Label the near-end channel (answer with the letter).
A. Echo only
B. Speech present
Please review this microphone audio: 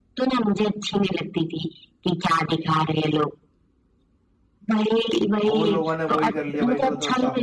B